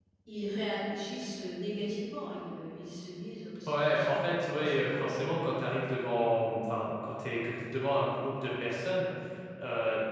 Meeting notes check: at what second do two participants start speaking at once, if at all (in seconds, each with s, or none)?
3.7 s